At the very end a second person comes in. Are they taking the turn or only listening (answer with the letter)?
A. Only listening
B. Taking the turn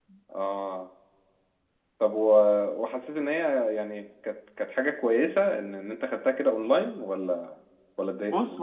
B